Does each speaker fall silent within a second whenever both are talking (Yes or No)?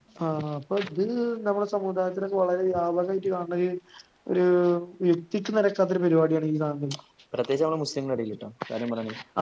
Yes